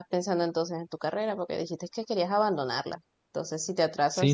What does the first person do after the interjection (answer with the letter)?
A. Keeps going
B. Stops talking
B